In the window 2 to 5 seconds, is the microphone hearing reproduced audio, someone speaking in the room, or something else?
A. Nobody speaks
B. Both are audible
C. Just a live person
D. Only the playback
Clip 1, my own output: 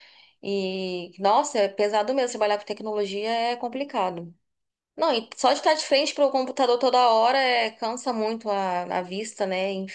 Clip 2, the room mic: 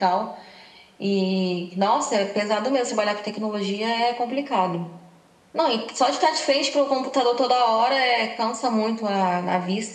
D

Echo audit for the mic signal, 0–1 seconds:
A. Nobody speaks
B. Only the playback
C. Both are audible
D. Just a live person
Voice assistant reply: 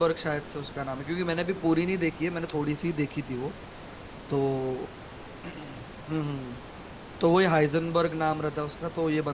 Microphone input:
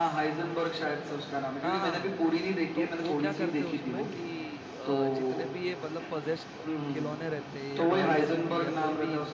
B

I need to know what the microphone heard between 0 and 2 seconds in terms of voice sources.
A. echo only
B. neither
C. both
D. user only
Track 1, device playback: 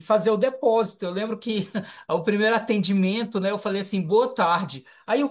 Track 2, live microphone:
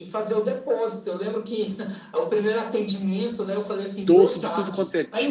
A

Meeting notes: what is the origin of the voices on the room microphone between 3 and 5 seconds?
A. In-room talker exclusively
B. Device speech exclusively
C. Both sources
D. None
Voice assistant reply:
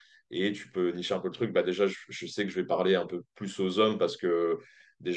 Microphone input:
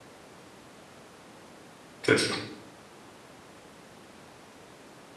D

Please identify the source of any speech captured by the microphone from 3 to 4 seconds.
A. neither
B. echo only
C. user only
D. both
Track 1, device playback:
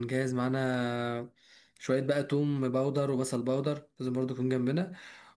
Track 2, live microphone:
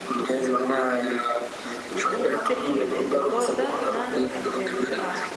D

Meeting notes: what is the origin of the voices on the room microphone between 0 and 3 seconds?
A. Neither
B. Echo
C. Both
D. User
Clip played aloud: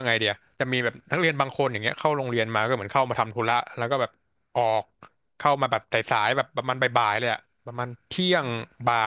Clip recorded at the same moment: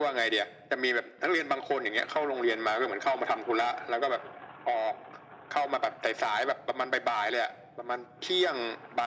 B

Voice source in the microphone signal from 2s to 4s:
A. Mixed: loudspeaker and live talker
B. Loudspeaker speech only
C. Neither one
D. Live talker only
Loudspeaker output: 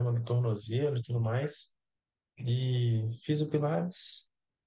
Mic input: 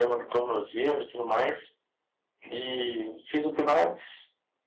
B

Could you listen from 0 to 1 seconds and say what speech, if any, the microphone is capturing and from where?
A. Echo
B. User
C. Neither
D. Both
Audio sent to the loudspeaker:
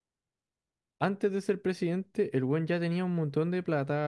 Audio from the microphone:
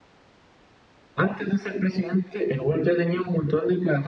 C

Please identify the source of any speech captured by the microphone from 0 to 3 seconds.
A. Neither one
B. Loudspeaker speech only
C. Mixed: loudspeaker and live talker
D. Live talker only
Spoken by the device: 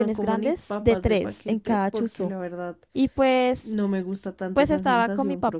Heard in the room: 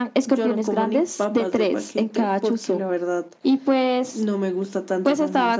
B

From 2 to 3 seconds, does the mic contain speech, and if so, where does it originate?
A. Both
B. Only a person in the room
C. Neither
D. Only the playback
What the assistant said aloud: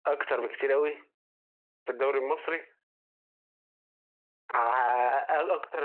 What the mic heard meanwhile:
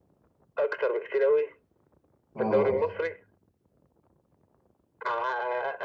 A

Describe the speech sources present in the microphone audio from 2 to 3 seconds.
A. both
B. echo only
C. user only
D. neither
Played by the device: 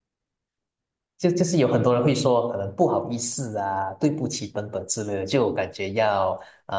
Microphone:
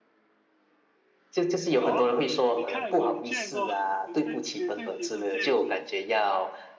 A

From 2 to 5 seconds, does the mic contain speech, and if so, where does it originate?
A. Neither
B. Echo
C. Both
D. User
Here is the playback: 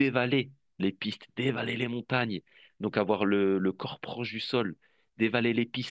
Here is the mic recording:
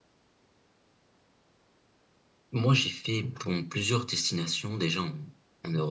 D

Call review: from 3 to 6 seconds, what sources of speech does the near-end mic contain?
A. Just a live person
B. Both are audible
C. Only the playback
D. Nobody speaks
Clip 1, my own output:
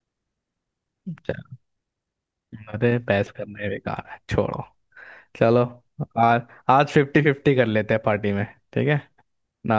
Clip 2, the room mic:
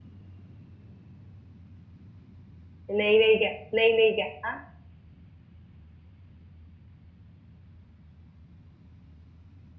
A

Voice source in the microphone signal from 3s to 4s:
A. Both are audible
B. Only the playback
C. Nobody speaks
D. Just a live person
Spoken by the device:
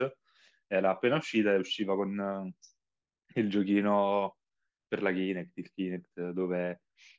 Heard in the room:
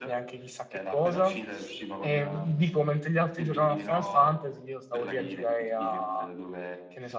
A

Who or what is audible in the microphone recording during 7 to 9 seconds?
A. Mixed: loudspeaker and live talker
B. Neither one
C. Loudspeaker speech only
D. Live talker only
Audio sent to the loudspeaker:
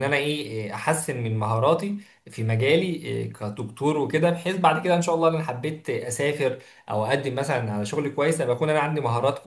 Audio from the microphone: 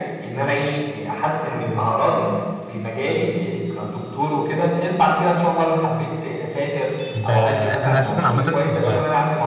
A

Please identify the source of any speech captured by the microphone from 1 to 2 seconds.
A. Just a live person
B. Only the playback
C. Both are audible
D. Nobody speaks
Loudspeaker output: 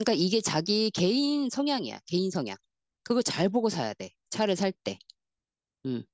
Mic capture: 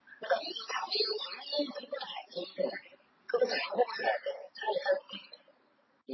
B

